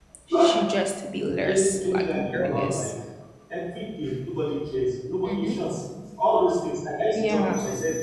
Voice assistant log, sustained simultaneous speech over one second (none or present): present